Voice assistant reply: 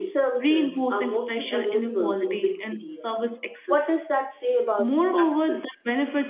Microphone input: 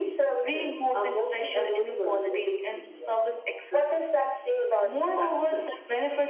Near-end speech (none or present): none